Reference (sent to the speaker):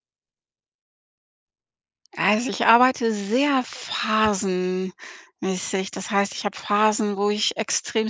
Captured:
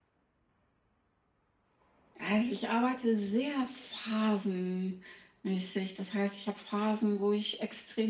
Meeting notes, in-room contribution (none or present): none